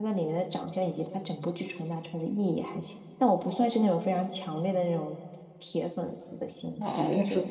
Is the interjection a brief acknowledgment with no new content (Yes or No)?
No